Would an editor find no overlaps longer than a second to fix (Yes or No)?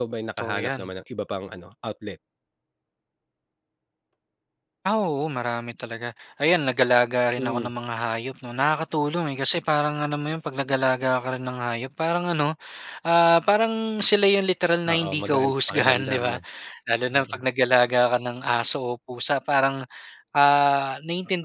No